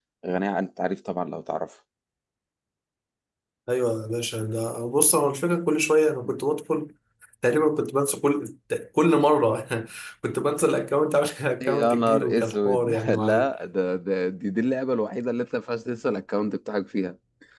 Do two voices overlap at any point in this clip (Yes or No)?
Yes